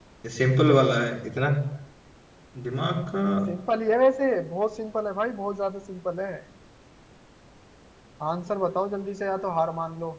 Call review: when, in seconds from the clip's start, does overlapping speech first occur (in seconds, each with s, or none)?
none